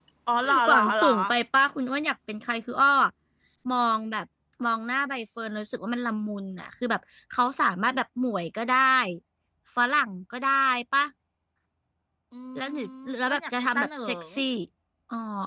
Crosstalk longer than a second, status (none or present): present